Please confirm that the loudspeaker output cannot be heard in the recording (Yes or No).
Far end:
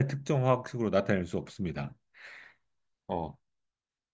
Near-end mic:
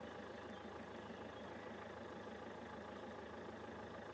Yes